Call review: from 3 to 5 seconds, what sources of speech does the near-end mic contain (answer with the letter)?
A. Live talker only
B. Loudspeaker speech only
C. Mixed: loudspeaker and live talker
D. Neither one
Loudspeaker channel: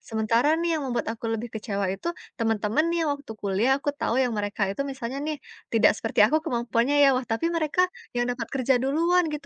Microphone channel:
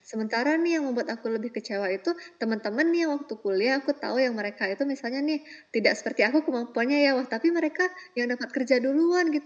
B